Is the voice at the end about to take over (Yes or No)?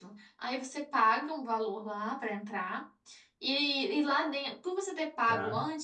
No